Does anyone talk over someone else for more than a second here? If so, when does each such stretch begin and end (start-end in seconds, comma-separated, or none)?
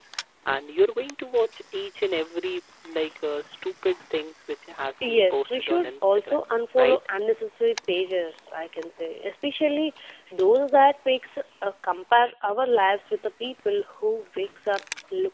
5.1-6.4